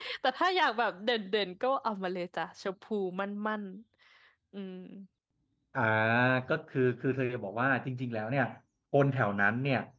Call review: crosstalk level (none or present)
none